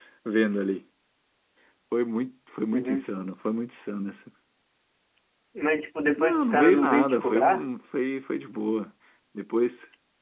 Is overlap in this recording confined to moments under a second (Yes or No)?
No